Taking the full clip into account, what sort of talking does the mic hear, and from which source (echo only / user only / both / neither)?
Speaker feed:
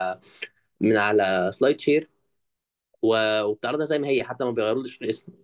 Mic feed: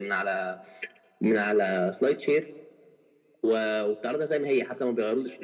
echo only